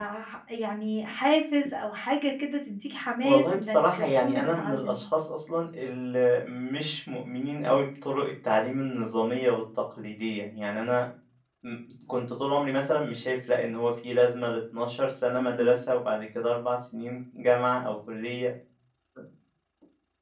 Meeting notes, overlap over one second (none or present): present